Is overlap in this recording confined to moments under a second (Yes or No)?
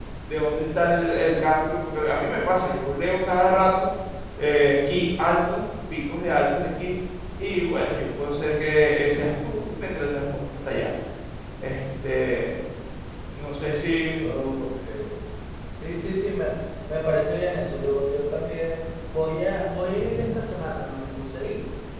Yes